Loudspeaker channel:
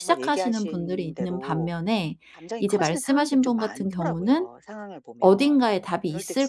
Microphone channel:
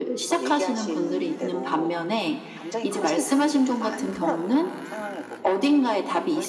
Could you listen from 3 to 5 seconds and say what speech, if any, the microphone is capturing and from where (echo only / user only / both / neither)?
echo only